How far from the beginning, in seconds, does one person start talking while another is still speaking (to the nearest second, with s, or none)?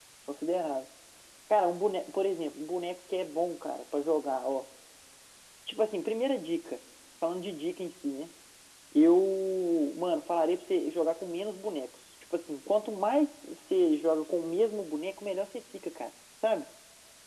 none